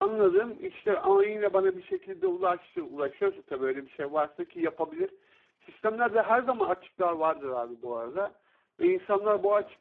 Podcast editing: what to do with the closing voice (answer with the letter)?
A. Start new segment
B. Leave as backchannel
B